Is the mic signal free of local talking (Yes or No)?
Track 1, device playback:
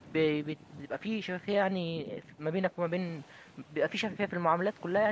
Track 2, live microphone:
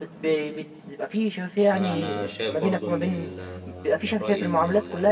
No